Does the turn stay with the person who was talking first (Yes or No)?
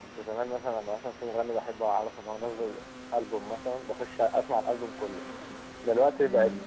Yes